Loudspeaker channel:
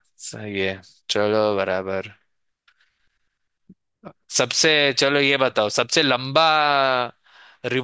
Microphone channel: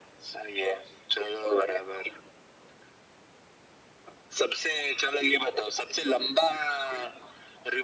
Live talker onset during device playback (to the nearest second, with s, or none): none